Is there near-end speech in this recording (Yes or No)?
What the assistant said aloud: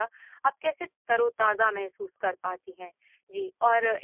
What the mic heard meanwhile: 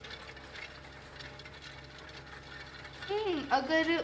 Yes